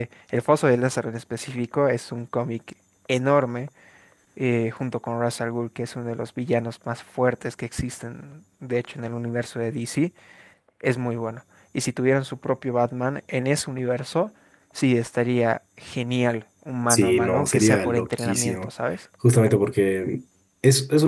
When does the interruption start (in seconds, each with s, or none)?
16.9 s